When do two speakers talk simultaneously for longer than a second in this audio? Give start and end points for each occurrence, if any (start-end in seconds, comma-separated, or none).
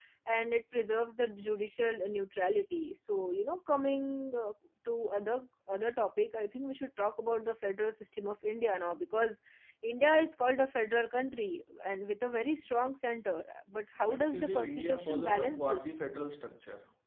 14.1-16.0